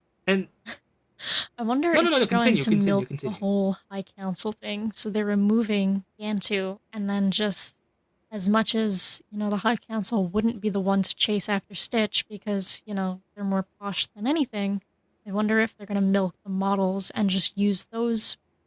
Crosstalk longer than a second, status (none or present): present